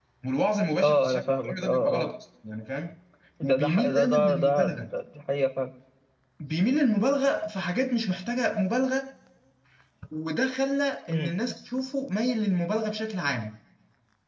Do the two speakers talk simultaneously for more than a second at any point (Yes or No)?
Yes